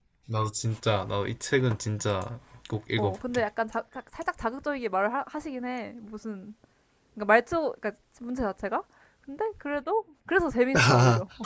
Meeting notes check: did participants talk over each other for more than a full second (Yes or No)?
No